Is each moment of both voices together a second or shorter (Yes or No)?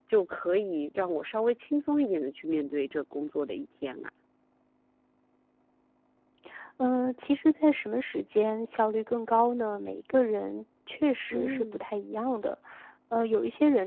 Yes